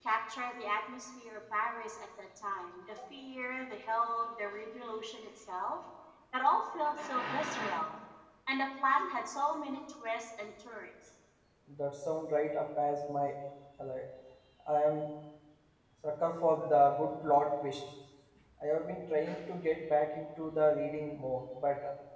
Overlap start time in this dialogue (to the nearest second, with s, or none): none